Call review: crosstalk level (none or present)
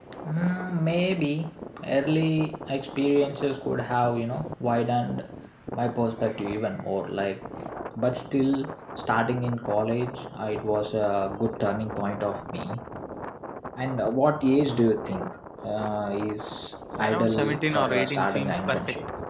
present